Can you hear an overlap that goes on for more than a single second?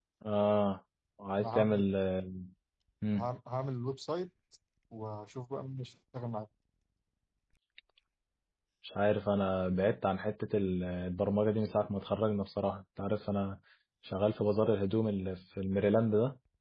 No

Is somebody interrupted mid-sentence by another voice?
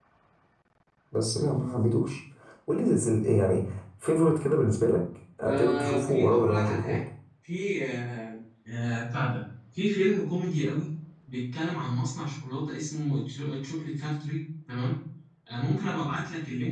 Yes, from 5.4 s

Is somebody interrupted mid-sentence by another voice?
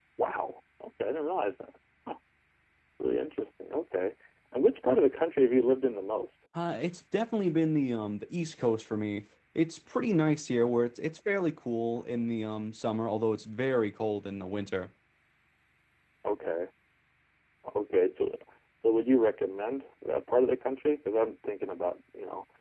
No

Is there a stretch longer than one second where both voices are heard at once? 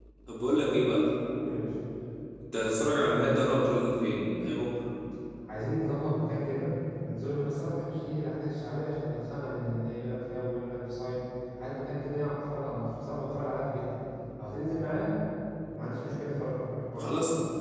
No

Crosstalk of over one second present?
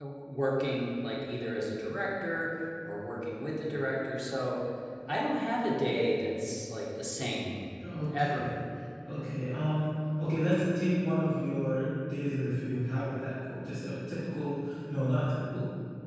No

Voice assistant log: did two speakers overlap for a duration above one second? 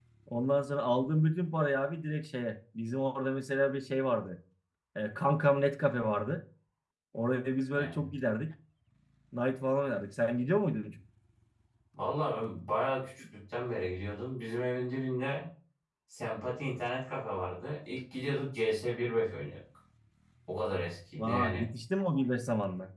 No

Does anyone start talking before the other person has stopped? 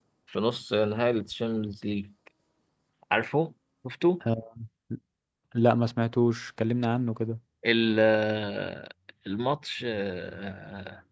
No

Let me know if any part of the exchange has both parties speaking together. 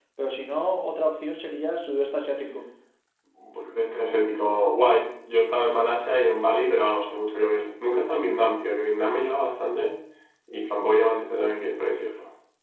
No

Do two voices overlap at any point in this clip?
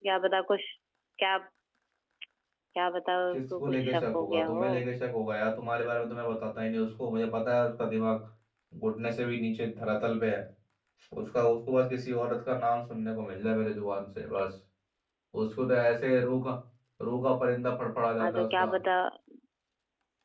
Yes, from 3.3 s

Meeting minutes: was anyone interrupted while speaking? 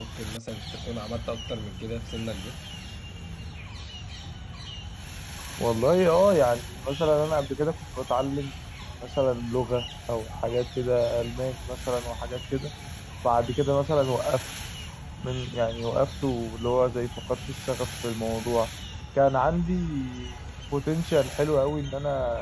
No

